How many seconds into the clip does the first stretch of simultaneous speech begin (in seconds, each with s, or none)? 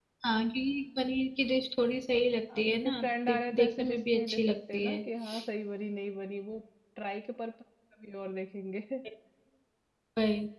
2.5 s